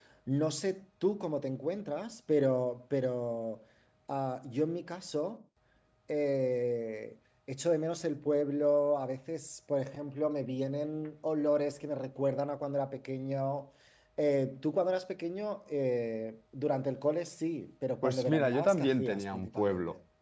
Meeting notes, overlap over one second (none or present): present